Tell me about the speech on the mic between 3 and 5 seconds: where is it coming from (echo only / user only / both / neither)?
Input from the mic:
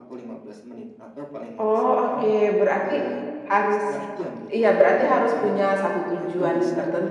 both